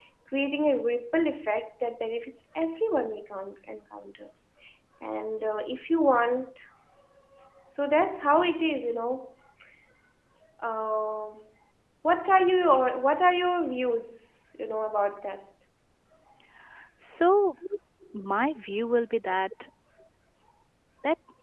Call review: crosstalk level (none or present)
none